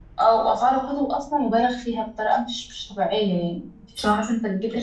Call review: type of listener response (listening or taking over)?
listening